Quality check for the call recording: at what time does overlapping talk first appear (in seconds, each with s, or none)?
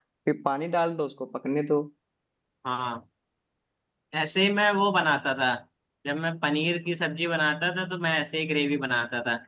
none